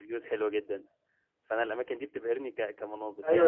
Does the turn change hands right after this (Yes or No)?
Yes